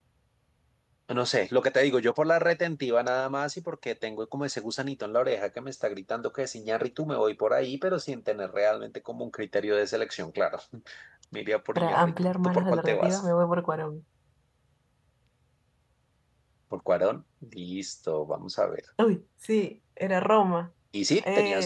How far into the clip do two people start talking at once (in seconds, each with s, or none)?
11.8 s